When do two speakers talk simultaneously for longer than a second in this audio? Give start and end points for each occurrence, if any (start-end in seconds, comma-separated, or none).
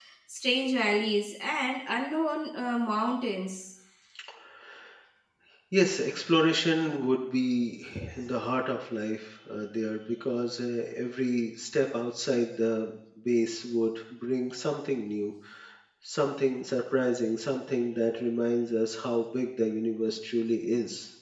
none